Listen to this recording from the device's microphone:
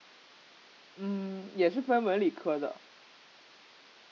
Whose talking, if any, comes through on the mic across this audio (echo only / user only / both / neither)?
user only